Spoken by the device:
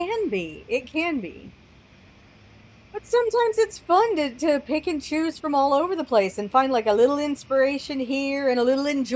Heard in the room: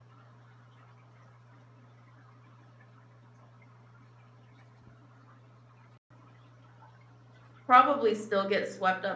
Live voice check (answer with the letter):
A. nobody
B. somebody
B